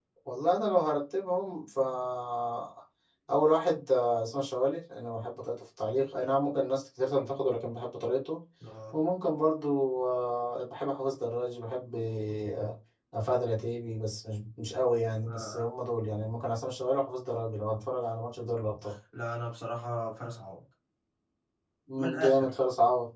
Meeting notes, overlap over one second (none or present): none